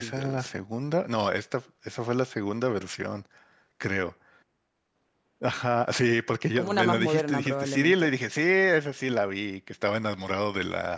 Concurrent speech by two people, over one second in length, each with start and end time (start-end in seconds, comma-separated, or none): 6.5-8.1